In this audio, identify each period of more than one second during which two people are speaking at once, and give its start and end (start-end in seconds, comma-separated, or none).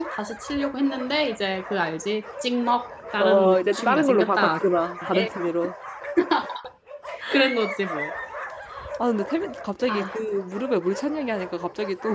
3.2-4.6